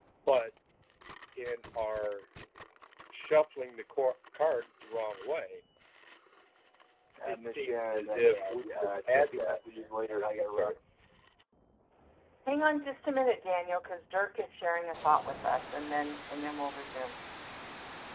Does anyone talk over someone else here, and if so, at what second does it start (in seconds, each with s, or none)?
7.2 s